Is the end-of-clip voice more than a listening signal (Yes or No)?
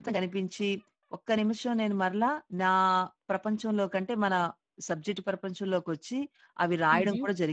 No